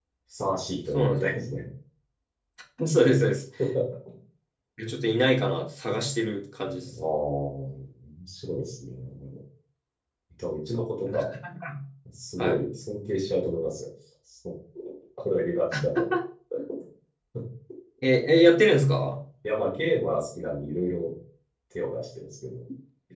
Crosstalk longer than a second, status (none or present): none